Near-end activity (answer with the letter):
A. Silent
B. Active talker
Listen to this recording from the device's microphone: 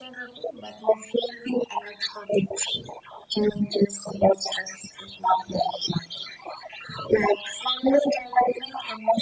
A